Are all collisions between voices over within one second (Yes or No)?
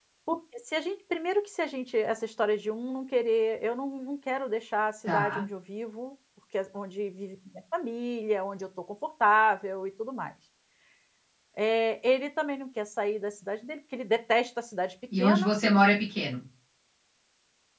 Yes